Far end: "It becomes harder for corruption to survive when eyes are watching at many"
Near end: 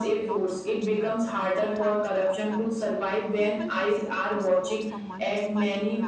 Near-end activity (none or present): present